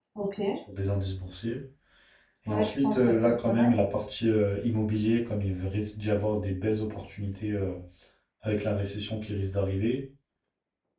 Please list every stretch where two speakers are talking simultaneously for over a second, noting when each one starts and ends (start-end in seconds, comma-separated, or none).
2.5-3.7